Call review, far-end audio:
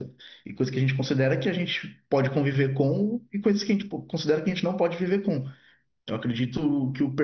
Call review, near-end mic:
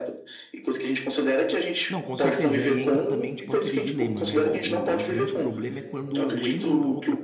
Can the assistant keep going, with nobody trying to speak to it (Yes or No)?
No